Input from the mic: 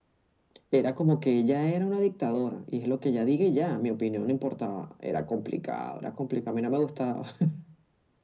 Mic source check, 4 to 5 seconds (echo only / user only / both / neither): echo only